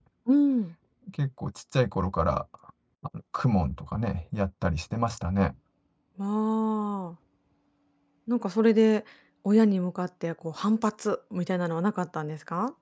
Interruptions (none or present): none